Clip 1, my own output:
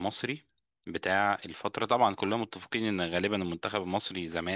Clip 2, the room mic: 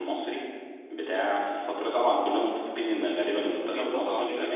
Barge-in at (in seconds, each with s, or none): 3.4 s